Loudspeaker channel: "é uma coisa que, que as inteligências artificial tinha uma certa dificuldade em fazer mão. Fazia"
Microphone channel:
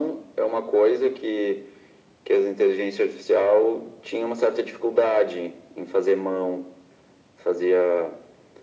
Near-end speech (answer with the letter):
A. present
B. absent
B